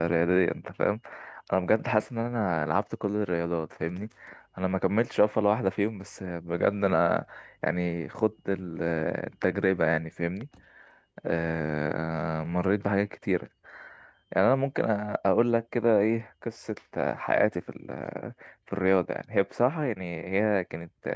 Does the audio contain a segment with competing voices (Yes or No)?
No